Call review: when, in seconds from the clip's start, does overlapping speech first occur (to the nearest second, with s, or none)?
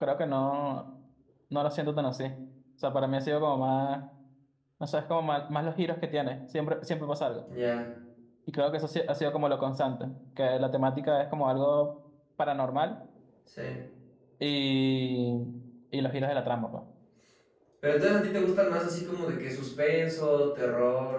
none